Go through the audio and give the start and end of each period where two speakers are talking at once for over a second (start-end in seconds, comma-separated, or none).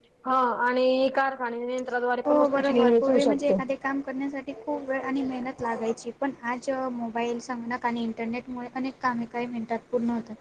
2.2-3.6